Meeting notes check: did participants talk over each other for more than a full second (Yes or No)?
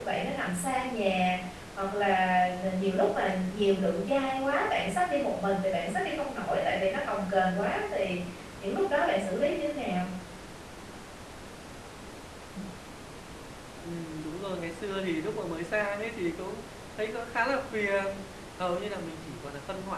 No